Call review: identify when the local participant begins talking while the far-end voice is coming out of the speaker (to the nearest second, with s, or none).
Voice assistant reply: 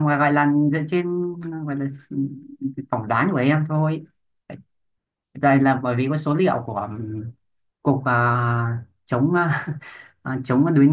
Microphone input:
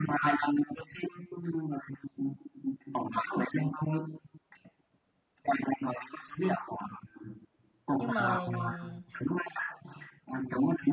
8 s